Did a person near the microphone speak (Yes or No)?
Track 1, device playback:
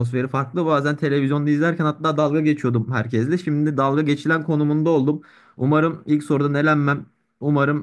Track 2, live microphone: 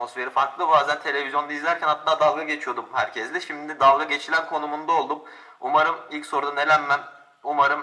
No